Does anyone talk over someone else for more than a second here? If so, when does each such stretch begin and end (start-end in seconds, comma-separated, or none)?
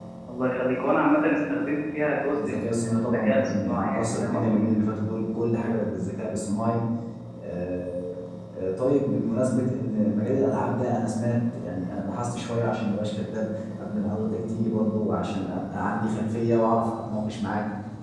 2.4-4.6